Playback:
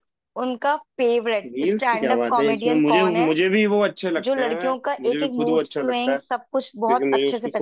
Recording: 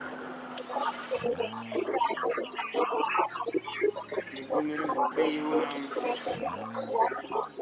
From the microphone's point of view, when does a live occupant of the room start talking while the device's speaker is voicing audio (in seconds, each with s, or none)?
4.4 s